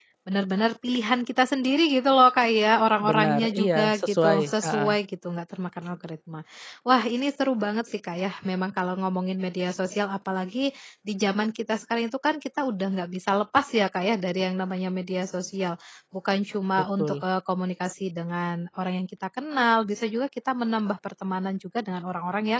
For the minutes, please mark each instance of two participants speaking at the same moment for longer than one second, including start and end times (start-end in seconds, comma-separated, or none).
3.1-4.9